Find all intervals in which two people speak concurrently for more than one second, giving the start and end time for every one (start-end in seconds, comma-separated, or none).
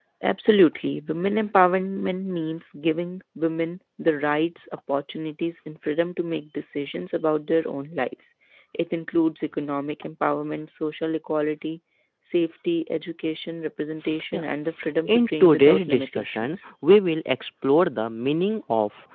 15.1-16.6